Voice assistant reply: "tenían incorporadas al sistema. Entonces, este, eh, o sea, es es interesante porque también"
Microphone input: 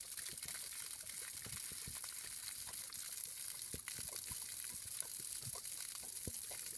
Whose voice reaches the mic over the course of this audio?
neither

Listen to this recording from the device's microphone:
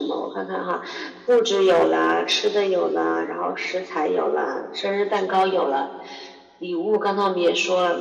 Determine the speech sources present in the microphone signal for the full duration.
echo only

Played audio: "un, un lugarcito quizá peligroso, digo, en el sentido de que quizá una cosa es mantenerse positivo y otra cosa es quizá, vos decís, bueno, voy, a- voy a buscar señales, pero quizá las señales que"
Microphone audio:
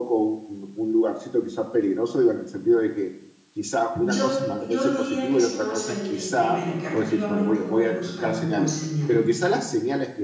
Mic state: both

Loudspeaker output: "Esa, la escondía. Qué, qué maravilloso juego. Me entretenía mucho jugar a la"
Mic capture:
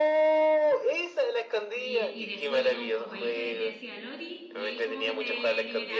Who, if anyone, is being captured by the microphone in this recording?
both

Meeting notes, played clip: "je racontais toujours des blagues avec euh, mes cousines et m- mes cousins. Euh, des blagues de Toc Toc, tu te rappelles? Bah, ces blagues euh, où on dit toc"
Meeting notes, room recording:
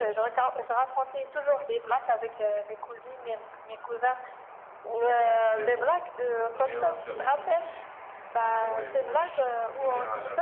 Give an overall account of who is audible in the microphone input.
both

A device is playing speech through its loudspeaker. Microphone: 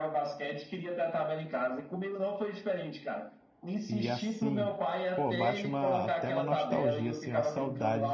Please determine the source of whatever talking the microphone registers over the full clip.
both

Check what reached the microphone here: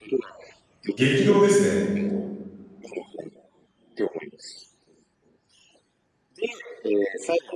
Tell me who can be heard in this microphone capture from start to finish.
both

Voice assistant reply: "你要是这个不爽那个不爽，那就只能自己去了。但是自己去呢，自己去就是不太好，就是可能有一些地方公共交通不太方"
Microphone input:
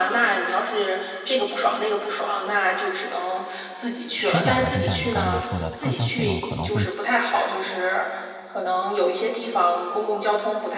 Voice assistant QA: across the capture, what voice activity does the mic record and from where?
both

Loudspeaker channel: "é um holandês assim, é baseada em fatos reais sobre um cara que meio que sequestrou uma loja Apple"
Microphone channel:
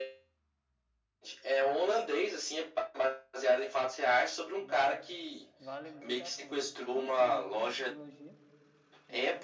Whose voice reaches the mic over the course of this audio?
both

